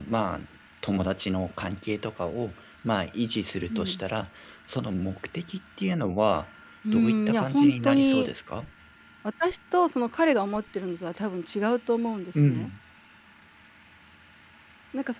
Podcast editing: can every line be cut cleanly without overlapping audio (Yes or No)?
No